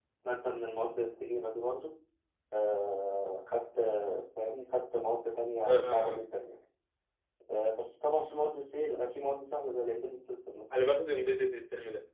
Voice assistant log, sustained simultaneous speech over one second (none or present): none